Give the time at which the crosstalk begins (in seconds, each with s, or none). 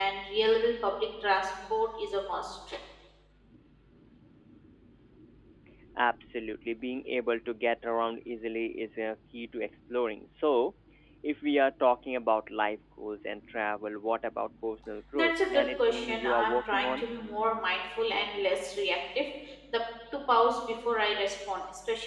15.1 s